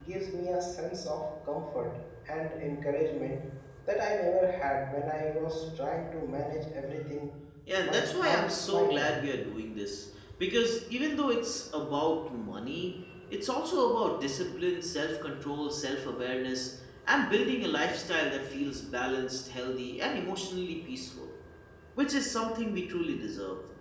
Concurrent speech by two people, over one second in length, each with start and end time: 7.8-9.2

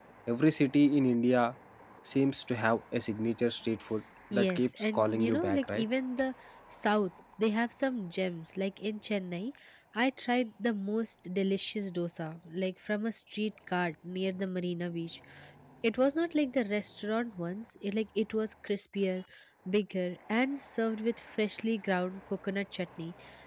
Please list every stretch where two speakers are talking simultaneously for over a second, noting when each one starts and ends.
4.3-5.8

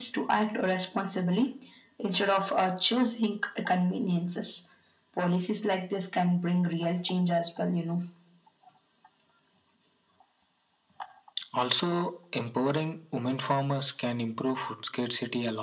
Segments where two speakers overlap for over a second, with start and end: none

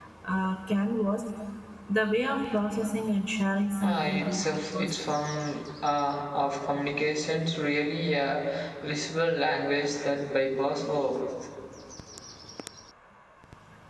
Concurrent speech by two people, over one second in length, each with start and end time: 3.8-5.1

